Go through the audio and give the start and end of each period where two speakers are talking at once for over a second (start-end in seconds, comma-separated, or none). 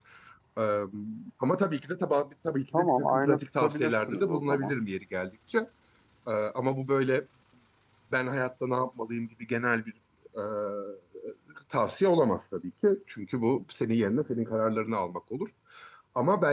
2.7-4.7